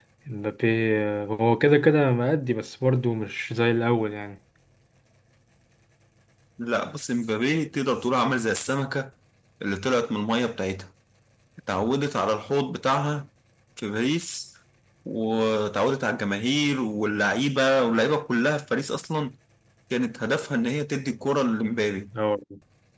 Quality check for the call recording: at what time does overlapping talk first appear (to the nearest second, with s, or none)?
none